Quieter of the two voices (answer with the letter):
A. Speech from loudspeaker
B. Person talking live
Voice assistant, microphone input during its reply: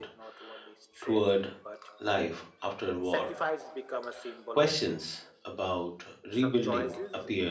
A